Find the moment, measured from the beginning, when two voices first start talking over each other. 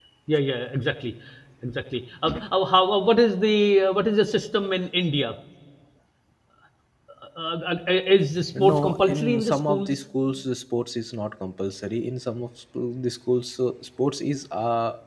8.6 s

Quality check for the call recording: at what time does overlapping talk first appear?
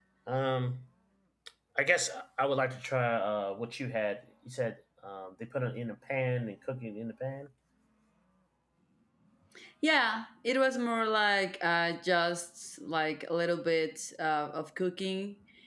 none

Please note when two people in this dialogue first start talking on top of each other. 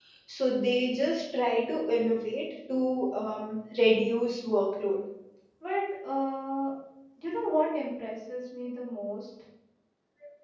none

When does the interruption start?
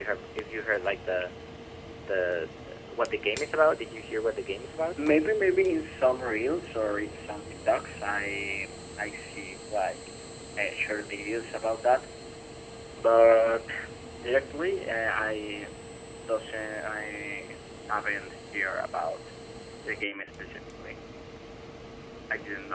none

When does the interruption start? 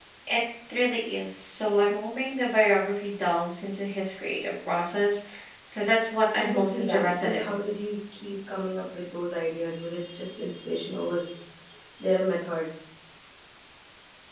6.4 s

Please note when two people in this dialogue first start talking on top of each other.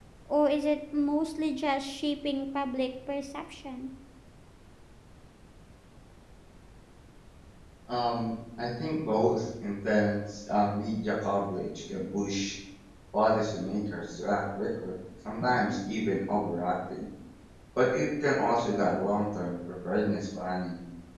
none

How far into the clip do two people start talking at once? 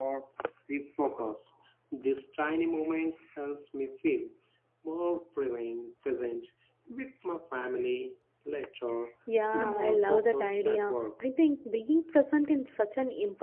9.5 s

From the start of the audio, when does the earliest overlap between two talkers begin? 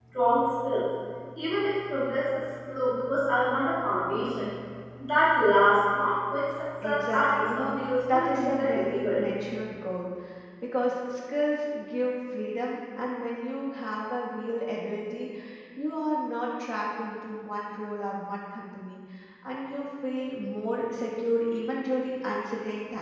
6.8 s

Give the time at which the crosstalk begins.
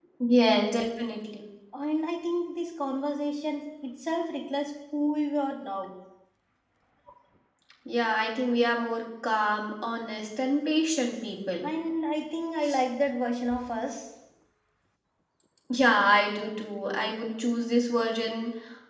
none

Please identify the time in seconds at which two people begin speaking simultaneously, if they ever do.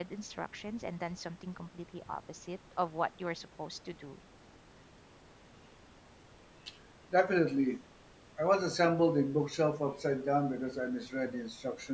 none

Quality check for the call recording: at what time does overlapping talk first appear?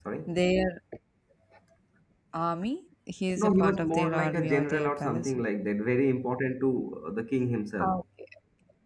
3.4 s

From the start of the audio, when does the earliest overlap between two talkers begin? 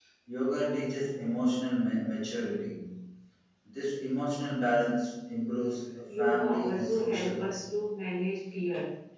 6.1 s

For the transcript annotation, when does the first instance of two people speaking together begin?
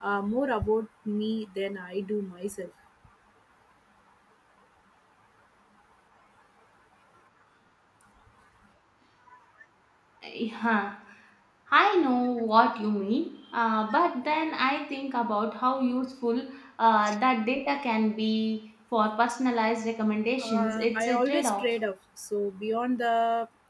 20.4 s

